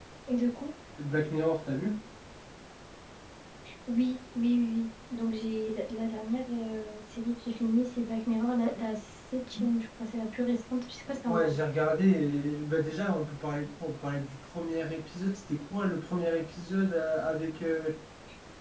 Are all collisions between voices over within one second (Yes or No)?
Yes